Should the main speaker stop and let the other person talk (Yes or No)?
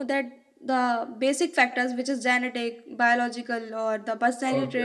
Yes